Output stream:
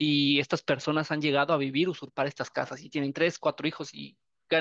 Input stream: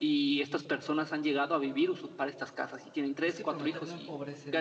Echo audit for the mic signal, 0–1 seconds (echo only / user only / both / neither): echo only